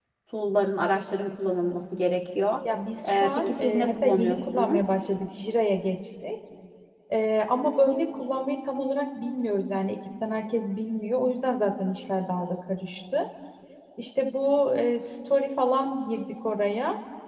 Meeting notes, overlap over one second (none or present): present